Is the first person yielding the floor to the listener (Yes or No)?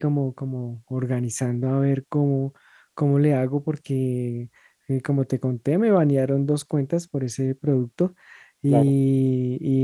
No